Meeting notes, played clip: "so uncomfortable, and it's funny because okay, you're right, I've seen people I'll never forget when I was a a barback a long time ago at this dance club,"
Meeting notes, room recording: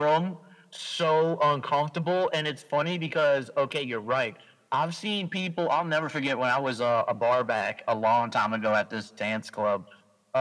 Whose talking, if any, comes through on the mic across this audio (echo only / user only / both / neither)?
echo only